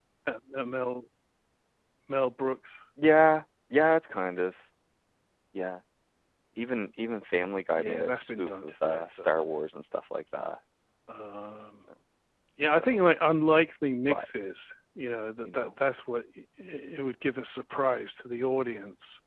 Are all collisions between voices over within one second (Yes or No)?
No